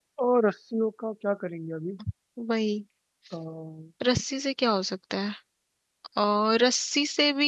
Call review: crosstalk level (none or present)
none